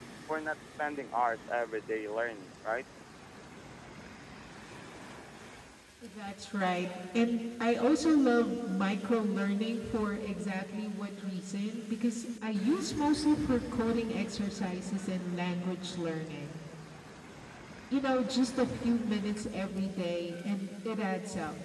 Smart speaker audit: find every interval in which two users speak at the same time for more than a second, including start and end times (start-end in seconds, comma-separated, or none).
none